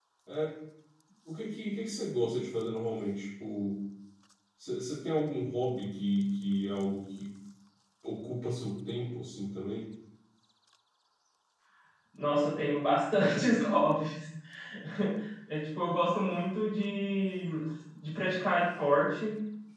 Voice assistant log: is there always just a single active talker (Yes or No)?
Yes